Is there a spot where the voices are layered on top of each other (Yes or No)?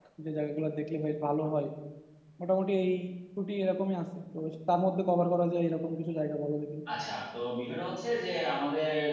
No